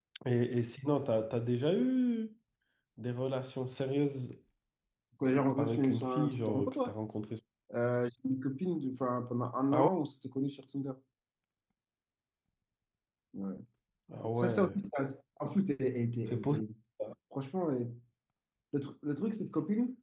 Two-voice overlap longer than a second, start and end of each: 5.6-6.9

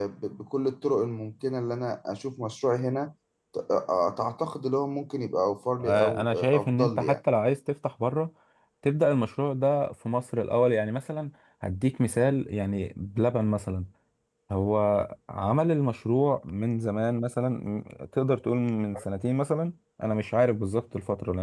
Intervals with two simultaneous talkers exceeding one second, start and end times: 5.8-7.2

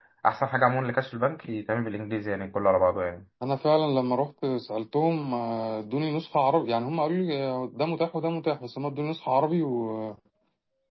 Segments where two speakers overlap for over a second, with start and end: none

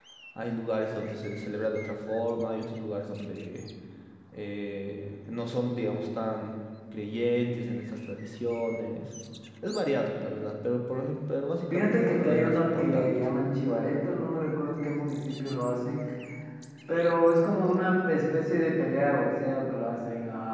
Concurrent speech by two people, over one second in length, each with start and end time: 11.7-13.3

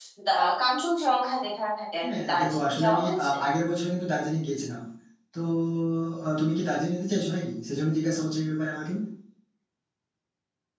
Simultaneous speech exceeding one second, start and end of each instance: 2.0-3.3

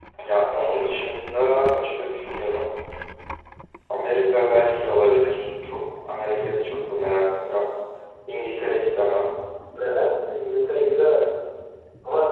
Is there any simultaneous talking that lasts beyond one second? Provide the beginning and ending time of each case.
none

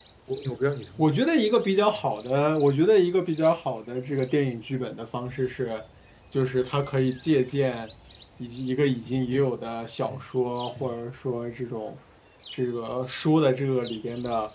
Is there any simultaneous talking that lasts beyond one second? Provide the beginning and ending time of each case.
none

